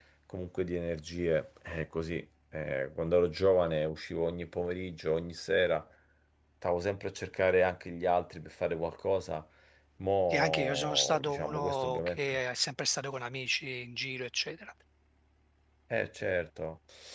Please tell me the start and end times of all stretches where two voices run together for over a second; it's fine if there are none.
10.3-12.4

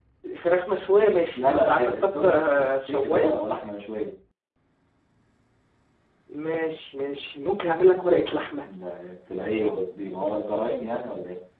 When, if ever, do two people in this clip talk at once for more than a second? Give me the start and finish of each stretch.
1.4-3.4

